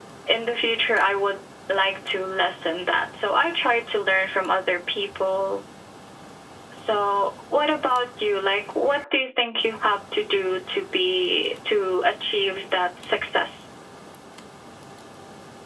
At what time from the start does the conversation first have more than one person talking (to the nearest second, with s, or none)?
none